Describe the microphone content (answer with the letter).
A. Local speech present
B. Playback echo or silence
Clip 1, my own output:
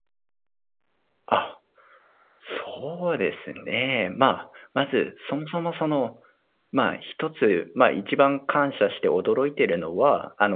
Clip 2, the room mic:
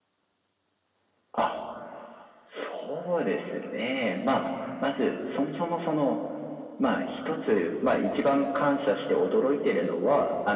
B